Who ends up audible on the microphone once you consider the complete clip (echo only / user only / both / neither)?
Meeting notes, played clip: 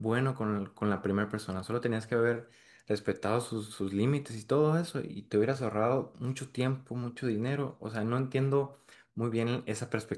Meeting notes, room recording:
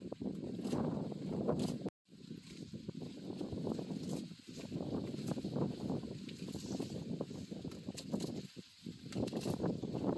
neither